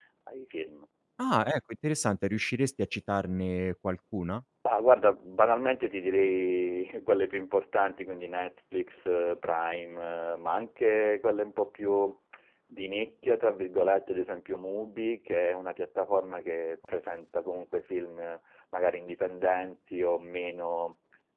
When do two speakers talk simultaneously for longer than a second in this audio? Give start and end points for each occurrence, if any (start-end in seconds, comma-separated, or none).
none